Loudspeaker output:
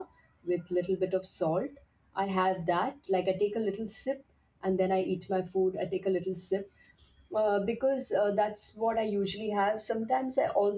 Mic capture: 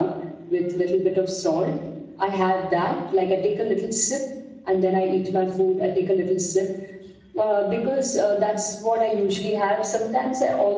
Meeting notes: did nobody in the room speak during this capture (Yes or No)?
Yes